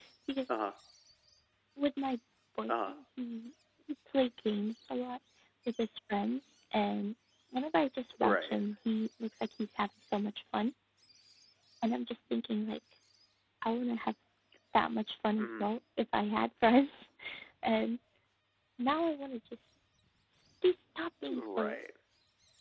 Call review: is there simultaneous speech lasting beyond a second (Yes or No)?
No